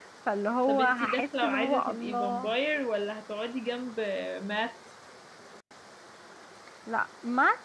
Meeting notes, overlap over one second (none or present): present